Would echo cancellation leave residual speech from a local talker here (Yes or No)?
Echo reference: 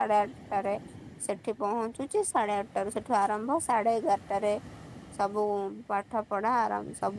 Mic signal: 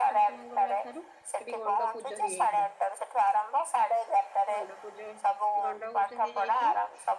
Yes